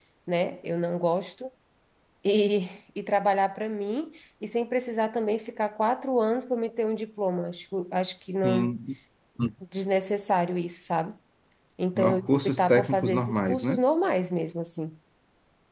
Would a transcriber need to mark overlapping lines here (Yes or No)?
Yes